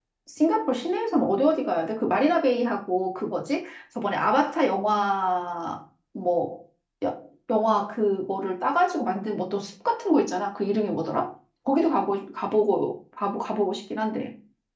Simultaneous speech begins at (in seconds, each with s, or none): none